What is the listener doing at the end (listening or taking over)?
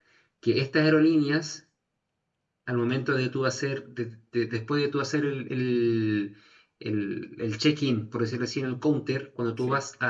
listening